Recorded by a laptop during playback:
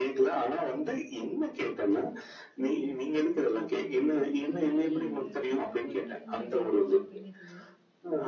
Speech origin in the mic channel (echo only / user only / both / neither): both